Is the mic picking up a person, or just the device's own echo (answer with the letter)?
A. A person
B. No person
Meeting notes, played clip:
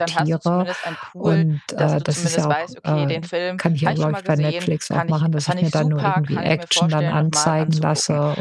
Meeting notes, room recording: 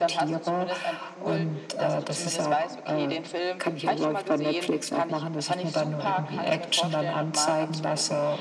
B